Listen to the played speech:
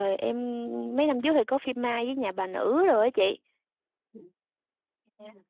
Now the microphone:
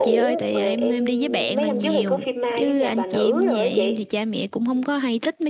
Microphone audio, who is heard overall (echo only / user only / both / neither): both